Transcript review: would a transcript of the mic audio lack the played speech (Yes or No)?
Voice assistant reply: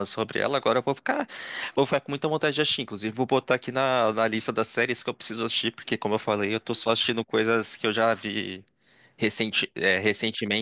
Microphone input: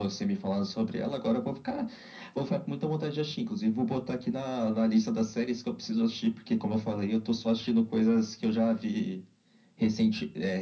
No